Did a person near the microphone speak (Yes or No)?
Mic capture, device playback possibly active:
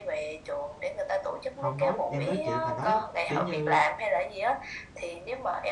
Yes